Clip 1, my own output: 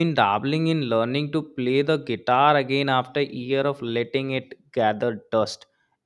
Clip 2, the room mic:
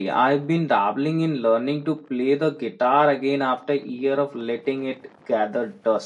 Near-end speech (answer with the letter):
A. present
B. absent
B